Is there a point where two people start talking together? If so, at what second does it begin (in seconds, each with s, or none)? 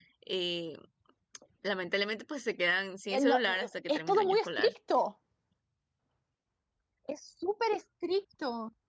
3.1 s